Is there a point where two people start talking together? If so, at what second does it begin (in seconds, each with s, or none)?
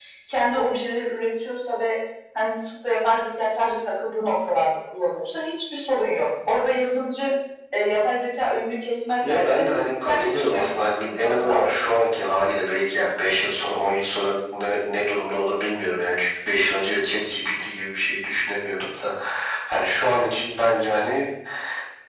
9.2 s